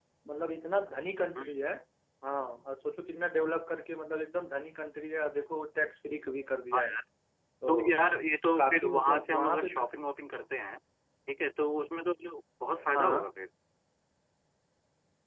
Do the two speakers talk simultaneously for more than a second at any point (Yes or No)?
Yes